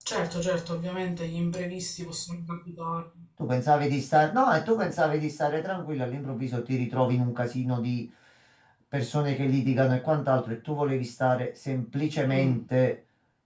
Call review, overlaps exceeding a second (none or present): none